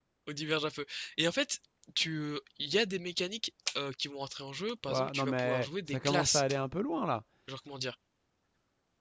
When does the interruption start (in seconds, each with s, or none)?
4.9 s